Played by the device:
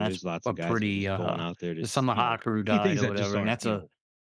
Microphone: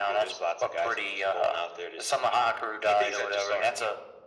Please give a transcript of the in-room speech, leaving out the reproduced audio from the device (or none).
none